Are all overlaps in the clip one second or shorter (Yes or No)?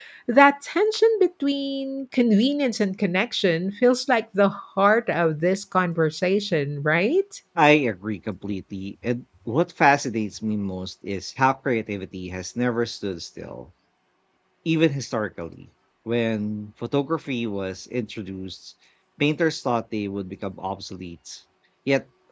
Yes